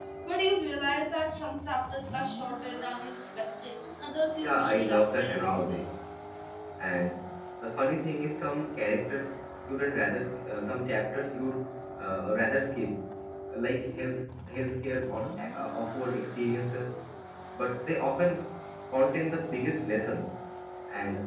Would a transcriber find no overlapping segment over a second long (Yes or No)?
No